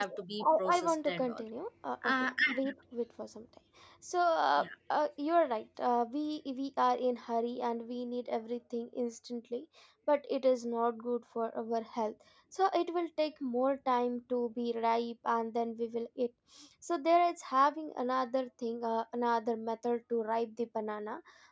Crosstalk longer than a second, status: present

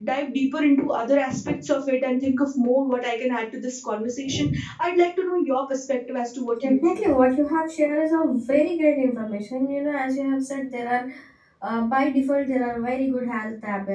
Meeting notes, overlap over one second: none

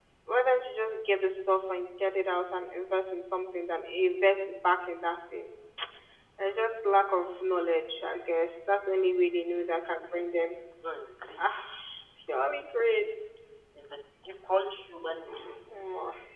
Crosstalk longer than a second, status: none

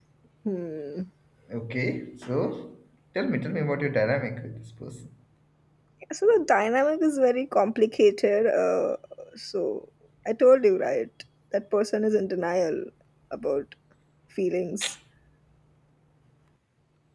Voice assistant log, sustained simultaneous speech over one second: none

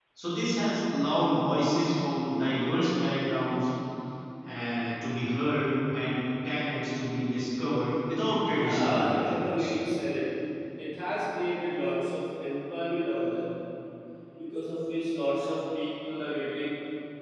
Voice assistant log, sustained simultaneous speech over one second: present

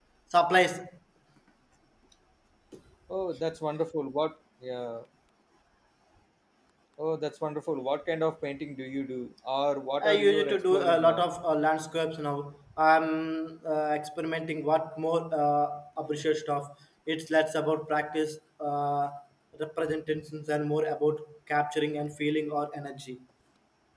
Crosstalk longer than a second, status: present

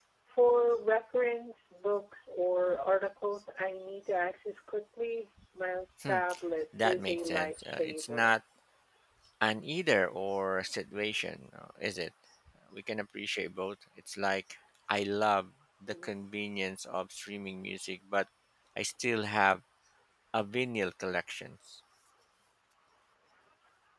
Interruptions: present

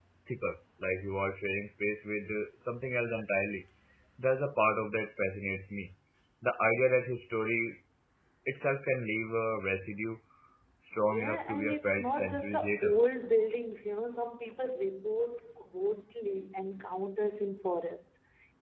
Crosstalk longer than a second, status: present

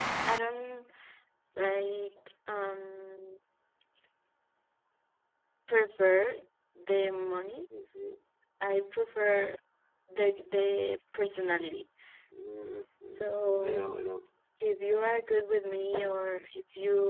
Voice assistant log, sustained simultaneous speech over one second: none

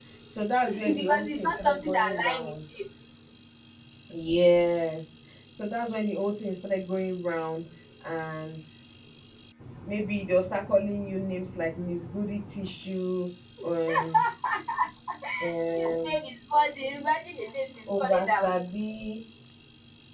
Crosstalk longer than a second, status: present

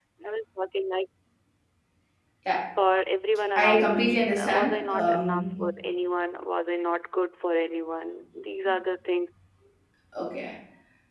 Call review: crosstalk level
present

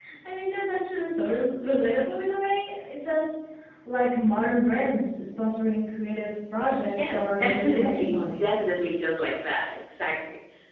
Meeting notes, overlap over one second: present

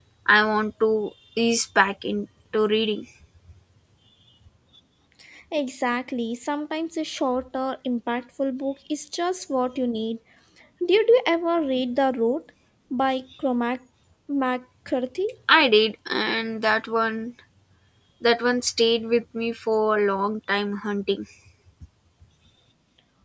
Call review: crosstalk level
none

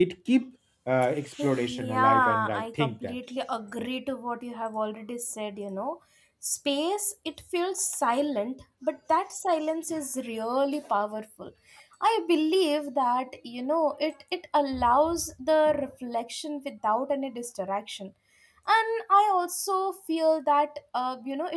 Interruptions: present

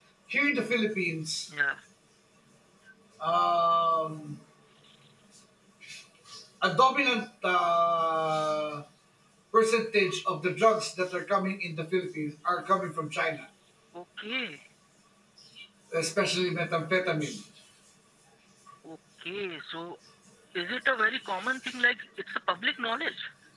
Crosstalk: none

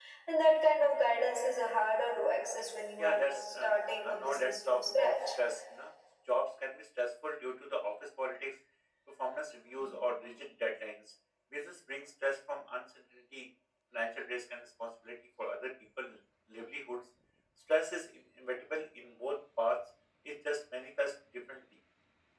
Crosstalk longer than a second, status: present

